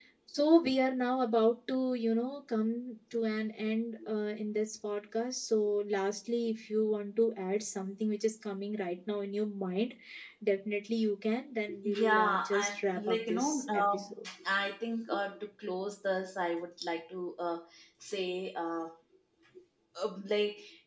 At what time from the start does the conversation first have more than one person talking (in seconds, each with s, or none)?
11.7 s